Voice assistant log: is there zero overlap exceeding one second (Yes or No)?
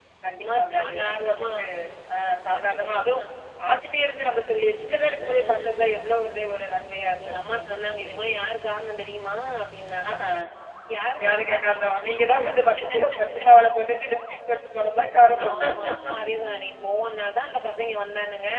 No